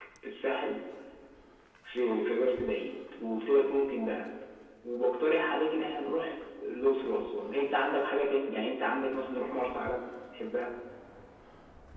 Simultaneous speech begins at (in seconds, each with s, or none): none